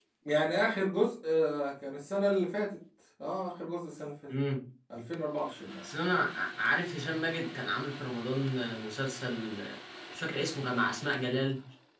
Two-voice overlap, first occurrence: none

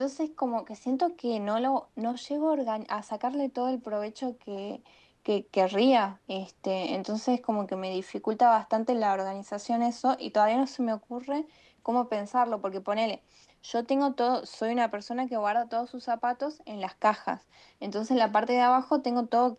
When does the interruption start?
none

